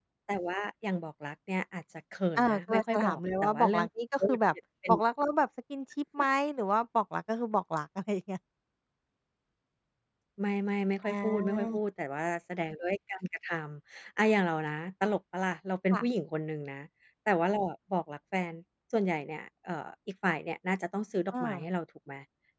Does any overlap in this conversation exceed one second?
Yes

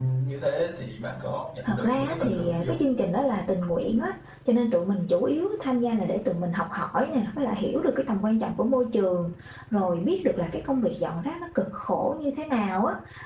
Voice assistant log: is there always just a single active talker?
No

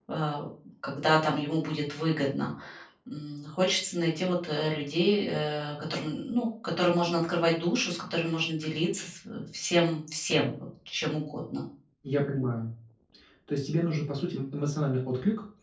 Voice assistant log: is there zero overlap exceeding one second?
Yes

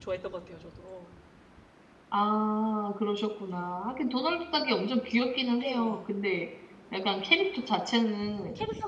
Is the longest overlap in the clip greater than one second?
No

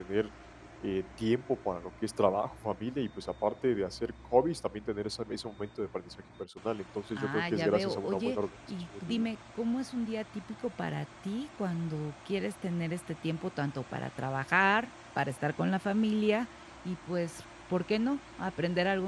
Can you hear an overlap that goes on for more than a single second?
Yes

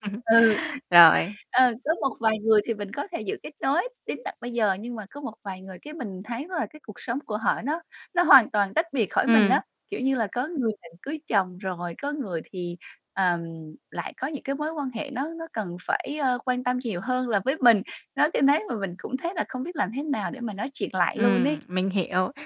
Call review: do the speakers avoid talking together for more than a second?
Yes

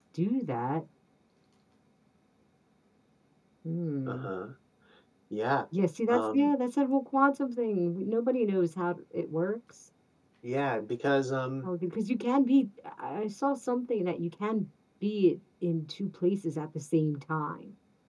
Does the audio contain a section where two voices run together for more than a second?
No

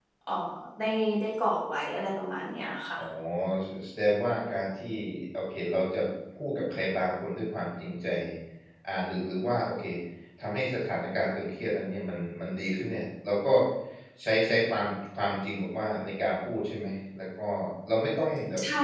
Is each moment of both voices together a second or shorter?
Yes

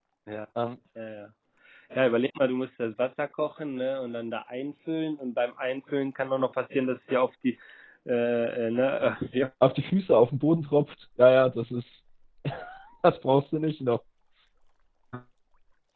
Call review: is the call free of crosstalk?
Yes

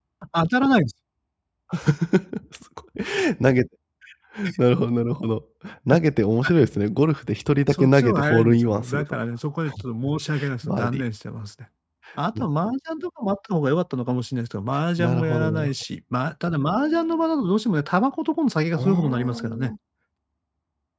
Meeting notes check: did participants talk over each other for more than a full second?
Yes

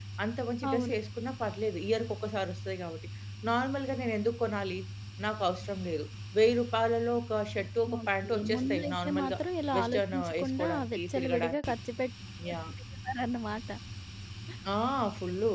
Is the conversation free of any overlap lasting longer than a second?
No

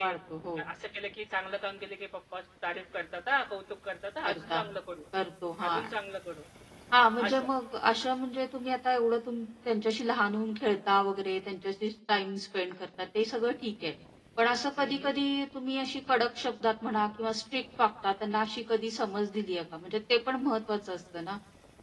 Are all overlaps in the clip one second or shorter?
Yes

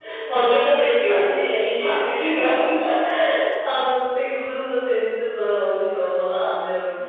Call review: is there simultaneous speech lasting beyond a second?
No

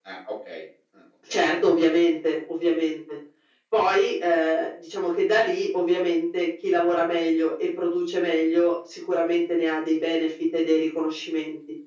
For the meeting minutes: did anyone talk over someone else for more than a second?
No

